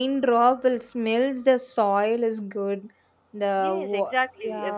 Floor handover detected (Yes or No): Yes